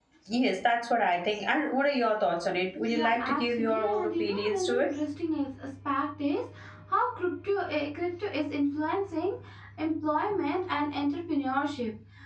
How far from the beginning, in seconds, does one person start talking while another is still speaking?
2.9 s

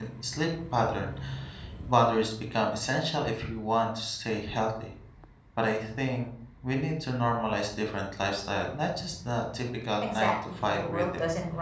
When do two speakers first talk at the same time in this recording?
10.0 s

